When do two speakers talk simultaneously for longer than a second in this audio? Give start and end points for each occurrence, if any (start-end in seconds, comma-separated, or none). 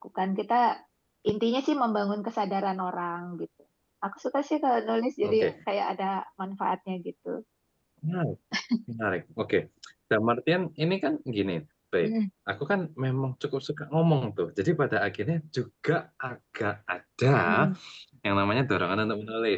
none